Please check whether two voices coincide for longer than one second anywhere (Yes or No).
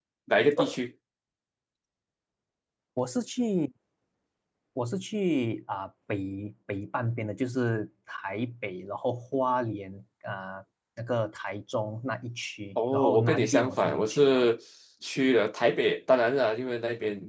Yes